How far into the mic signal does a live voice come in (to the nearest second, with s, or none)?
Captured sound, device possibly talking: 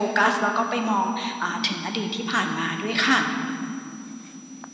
none